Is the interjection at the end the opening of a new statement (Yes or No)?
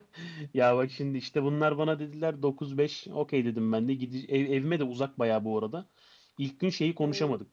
No